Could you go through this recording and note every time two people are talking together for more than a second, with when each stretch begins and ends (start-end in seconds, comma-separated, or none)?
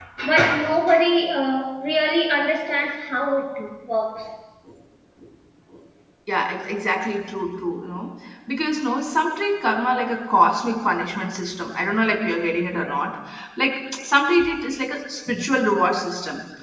none